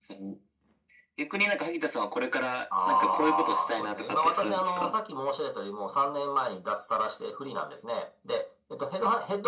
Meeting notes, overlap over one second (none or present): present